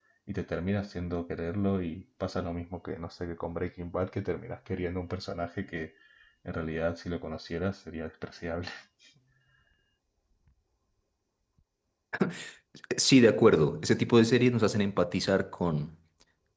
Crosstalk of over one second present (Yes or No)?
No